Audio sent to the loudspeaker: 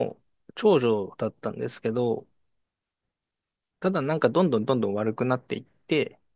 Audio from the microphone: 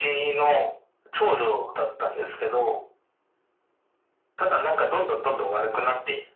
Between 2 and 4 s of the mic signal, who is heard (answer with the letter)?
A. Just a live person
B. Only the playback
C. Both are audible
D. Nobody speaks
B